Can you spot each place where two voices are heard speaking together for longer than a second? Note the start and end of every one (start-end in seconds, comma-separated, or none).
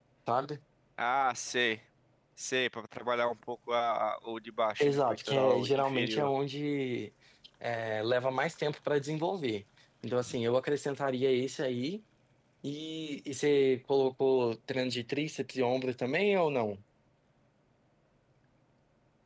4.8-6.3